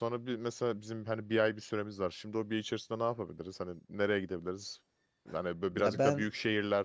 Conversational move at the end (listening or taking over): listening